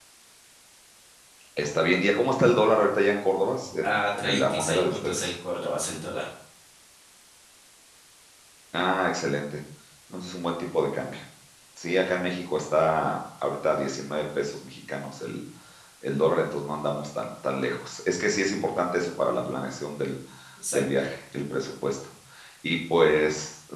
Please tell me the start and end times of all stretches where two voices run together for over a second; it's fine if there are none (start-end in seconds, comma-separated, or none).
3.8-5.2